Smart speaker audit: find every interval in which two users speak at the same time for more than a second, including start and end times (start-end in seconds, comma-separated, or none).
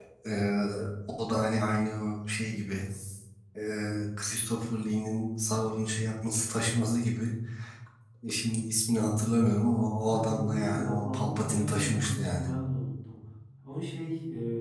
10.0-12.5